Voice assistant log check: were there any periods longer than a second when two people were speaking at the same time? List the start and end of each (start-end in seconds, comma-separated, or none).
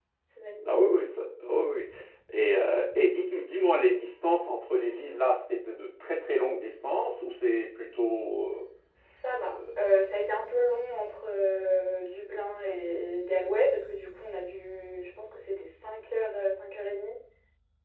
none